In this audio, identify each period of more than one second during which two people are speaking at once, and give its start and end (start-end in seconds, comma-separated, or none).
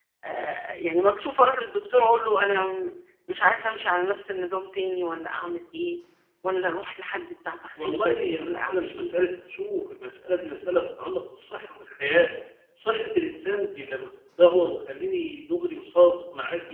7.8-9.3